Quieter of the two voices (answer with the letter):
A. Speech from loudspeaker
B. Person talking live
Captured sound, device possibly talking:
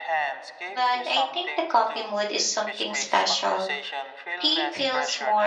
A